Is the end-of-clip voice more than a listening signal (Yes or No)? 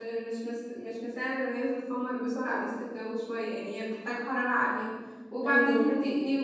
No